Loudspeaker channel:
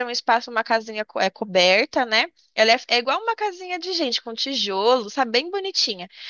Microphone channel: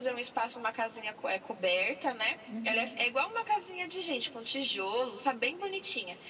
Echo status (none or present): present